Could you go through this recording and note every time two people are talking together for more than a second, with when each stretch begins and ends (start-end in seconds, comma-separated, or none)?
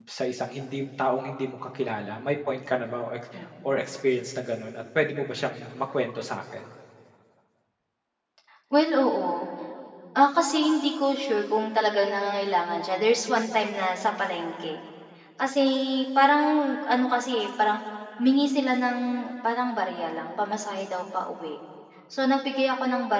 none